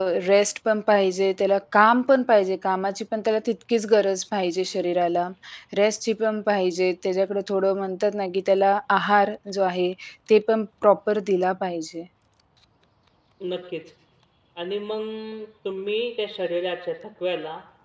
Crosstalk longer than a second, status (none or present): none